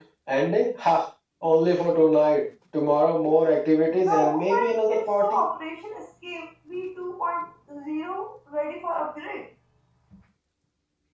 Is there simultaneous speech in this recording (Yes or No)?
Yes